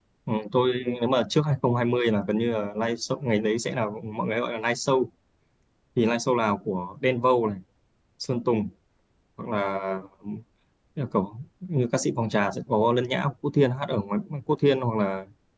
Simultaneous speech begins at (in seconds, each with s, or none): none